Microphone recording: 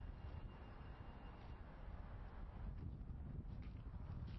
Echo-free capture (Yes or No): Yes